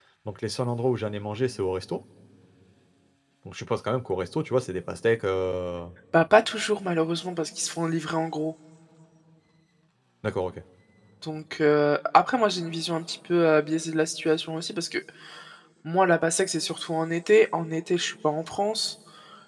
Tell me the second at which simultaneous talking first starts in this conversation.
none

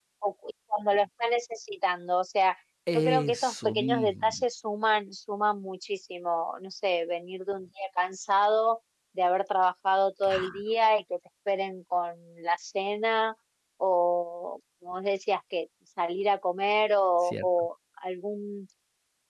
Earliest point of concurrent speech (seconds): 3 s

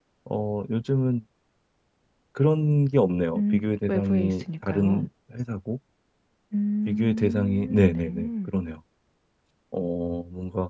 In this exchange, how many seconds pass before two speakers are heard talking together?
3 s

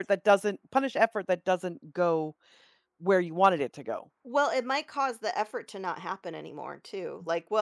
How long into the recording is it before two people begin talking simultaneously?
none

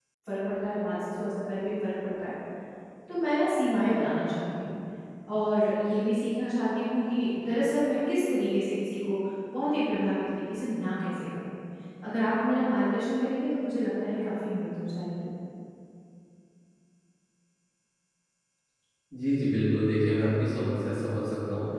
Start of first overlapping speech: none

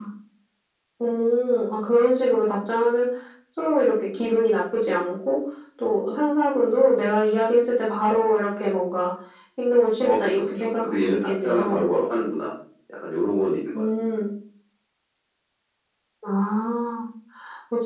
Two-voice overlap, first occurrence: 10 s

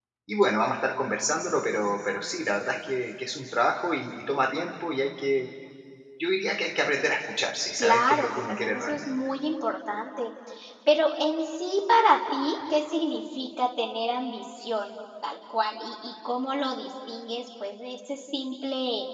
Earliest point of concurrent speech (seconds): 8 s

